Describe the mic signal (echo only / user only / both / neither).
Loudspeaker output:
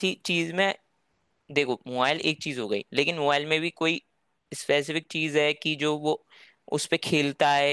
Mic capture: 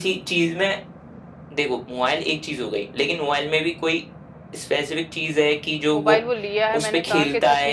both